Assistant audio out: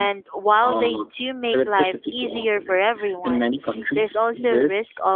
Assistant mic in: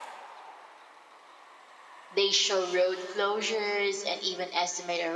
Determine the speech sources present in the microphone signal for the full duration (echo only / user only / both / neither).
user only